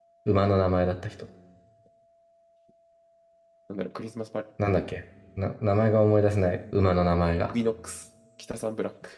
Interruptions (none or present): none